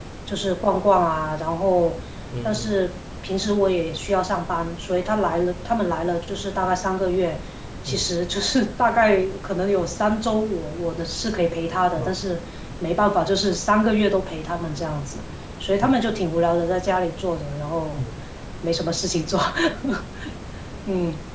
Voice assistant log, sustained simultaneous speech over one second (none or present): none